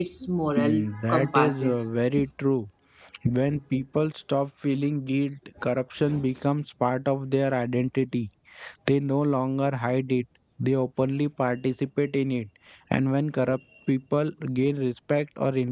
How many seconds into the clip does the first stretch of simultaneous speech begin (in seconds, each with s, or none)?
0.6 s